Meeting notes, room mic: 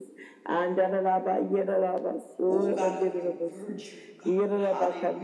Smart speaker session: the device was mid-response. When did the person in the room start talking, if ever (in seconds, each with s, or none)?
2.5 s